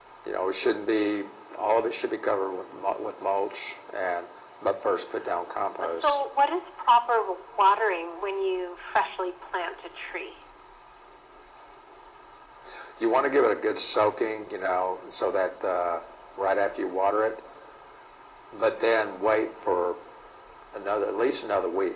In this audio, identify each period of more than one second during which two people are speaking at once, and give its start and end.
none

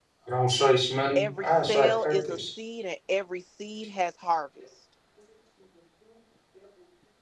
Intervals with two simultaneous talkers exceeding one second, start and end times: 1.2-2.4

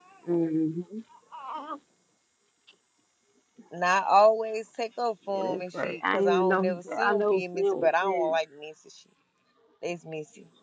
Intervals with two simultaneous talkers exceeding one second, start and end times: 5.3-8.4

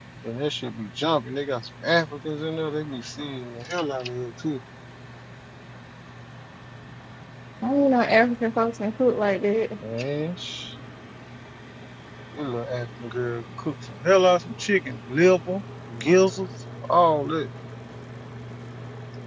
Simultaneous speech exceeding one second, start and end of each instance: none

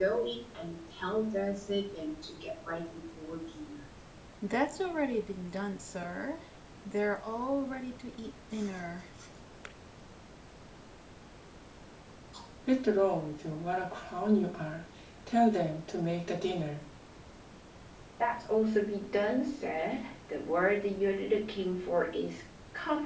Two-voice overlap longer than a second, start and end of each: none

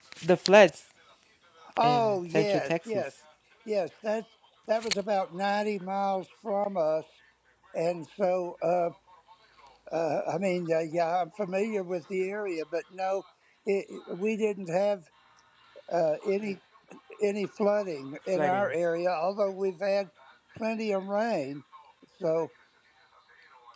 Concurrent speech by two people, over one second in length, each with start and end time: 1.8-3.0

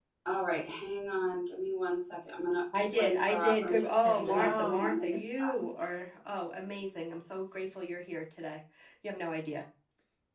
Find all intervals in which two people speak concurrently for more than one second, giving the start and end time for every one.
2.9-5.5

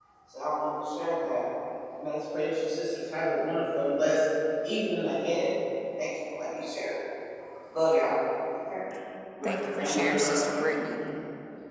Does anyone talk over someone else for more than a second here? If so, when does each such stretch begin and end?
9.4-11.0

